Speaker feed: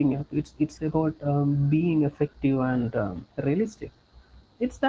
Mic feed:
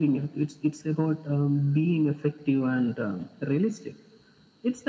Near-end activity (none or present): none